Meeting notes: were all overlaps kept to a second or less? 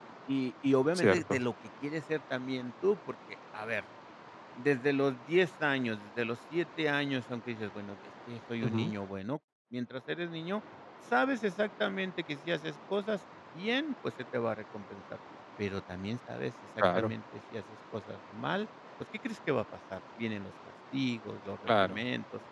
Yes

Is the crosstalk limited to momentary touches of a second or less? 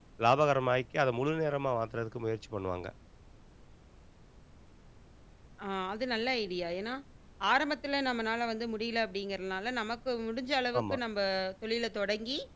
Yes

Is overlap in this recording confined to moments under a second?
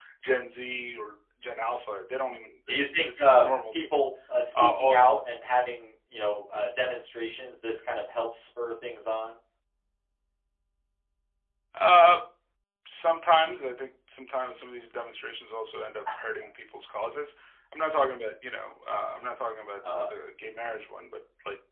No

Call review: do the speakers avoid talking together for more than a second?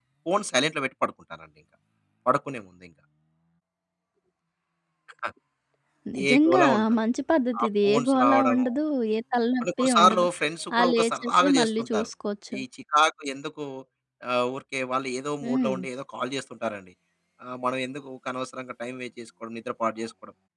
No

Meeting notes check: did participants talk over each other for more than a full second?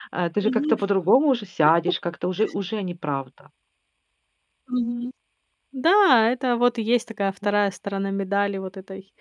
No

